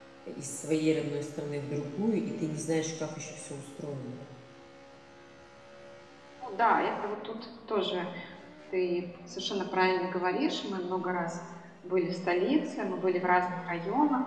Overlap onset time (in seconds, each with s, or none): none